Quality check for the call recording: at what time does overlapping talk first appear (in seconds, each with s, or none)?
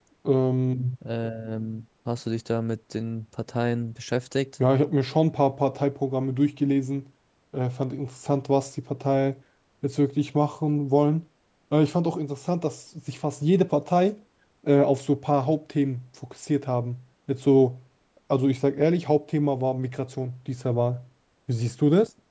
none